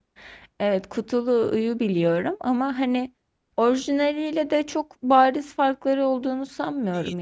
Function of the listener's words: taking over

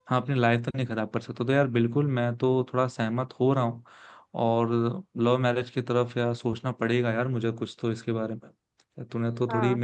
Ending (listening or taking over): listening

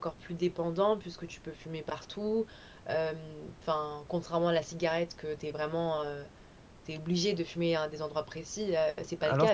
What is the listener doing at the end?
taking over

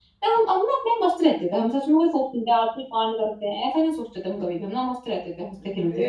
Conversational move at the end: taking over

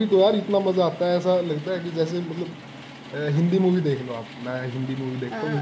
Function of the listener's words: listening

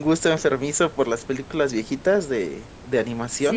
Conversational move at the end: taking over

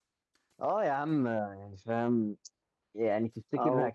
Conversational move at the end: listening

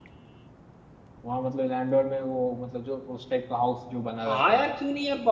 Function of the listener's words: taking over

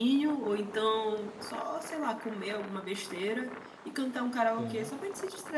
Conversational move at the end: listening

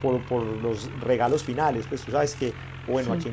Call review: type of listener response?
listening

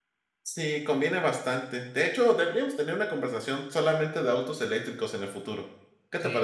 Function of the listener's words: taking over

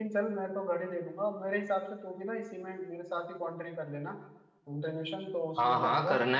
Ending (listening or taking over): taking over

